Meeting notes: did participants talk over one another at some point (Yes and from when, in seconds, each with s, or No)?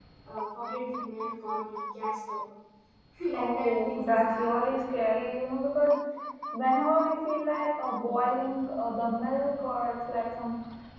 Yes, from 3.4 s